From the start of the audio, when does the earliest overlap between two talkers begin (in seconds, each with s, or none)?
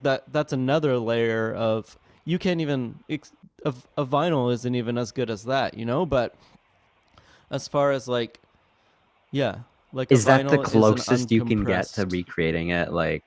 10.1 s